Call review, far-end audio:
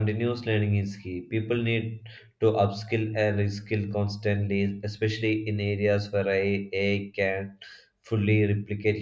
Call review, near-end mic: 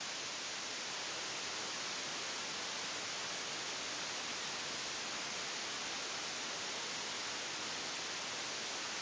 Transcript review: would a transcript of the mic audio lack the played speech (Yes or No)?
Yes